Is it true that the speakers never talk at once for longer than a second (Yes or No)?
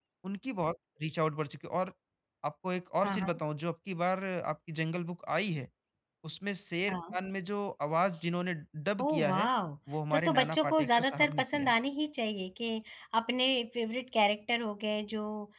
No